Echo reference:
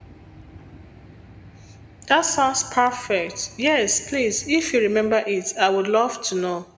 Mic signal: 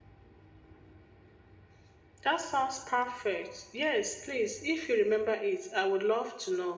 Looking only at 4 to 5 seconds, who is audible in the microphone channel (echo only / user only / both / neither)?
echo only